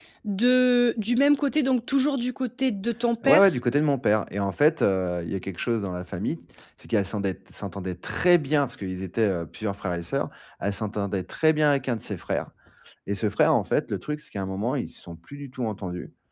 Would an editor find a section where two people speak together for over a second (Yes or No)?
No